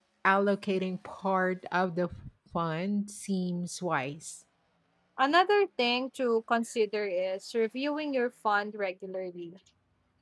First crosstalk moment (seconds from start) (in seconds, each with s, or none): none